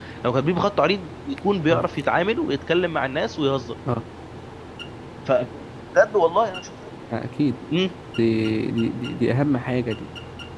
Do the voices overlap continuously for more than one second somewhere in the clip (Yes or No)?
No